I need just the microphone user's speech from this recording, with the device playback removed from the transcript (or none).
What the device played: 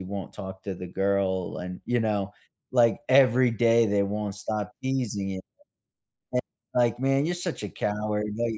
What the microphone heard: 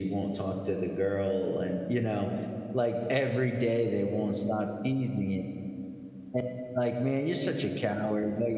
none